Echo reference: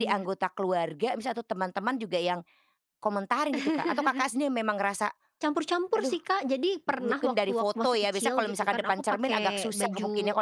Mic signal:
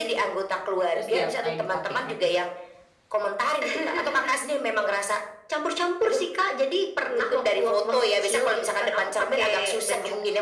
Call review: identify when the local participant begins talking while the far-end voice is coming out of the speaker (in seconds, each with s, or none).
0.9 s